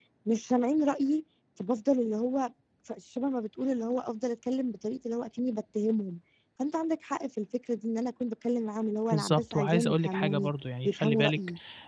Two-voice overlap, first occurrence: 9.1 s

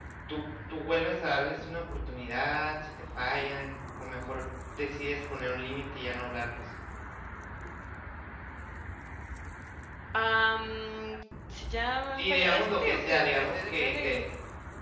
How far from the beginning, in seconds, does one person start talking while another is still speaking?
12.2 s

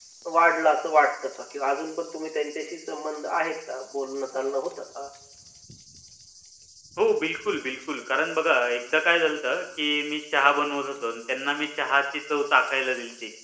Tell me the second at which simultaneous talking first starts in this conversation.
none

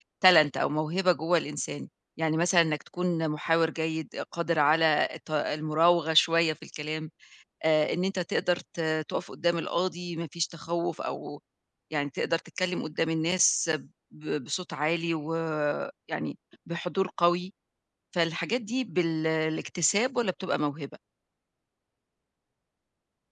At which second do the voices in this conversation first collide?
none

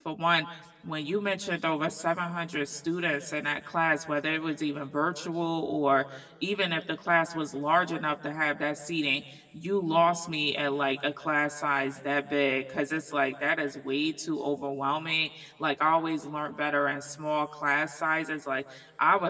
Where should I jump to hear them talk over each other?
none

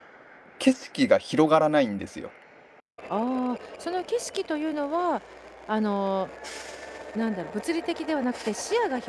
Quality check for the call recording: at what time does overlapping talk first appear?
none

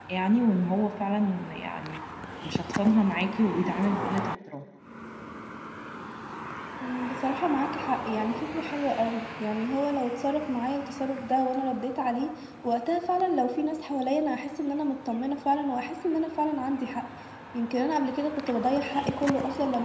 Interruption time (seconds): none

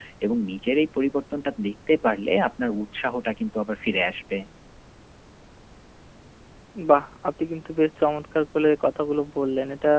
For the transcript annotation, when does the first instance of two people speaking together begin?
none

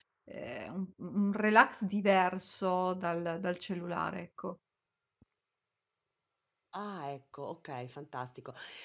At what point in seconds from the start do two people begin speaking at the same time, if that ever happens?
none

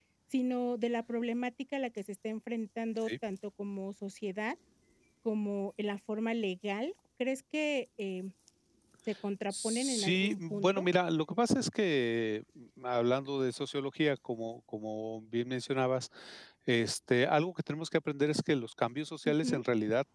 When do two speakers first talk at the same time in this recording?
9.5 s

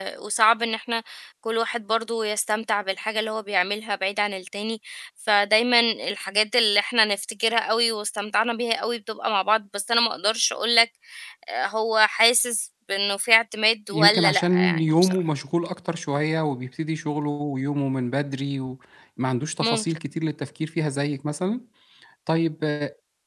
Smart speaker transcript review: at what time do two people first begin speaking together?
13.9 s

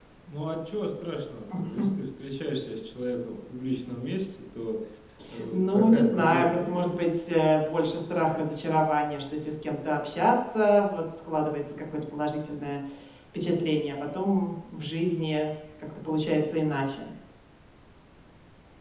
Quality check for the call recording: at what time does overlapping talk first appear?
5.5 s

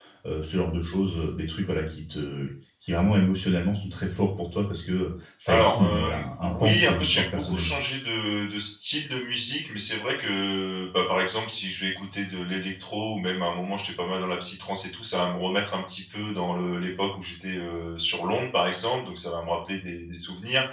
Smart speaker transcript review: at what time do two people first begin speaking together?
5.5 s

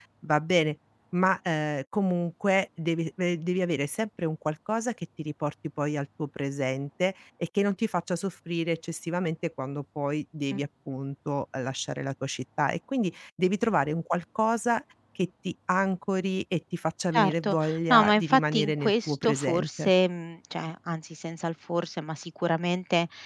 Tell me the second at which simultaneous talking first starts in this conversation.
17.1 s

